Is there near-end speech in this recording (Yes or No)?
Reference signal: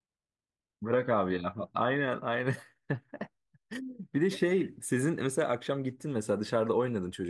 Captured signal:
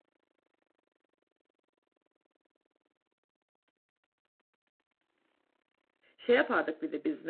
Yes